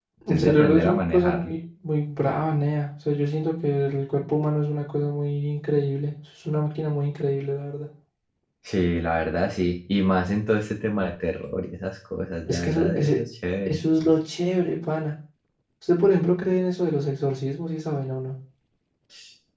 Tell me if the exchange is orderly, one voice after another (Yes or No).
No